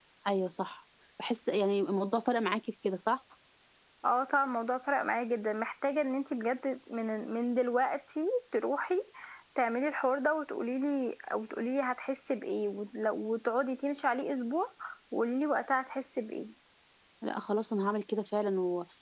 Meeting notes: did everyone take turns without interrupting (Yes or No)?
Yes